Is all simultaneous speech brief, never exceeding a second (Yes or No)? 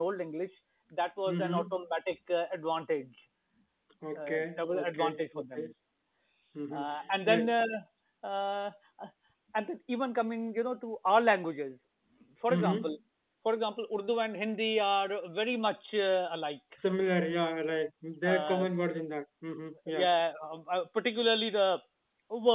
No